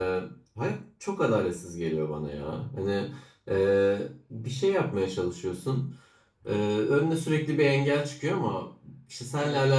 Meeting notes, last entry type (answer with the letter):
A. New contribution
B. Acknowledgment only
B